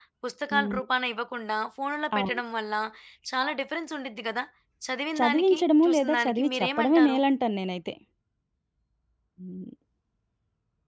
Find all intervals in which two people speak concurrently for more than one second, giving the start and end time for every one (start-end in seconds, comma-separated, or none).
5.2-7.2